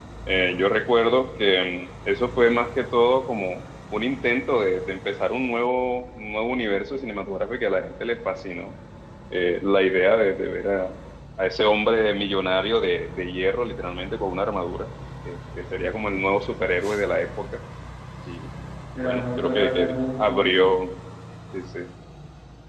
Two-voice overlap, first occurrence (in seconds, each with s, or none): 19.0 s